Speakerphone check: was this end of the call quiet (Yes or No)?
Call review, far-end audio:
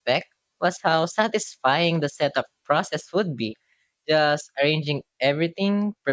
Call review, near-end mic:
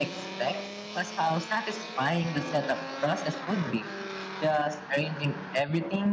Yes